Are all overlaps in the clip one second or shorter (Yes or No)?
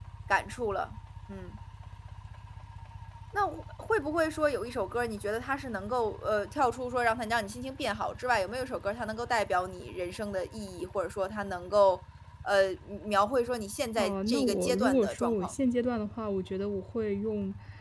No